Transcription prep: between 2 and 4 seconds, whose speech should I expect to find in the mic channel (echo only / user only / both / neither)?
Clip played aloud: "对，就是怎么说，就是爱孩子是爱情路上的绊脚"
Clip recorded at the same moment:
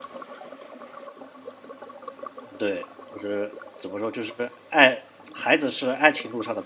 echo only